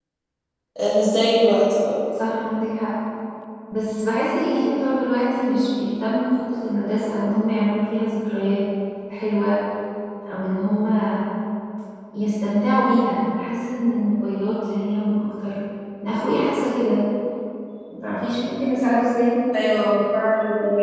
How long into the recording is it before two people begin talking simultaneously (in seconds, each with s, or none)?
none